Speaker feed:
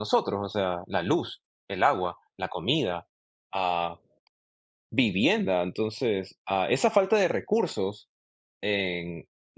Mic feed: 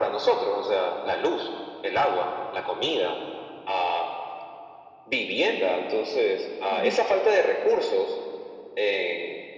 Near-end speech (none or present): present